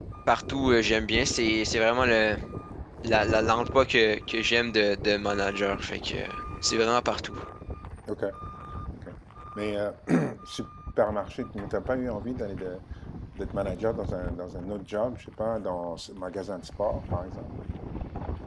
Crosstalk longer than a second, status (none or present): none